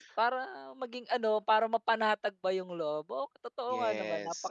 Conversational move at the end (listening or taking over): taking over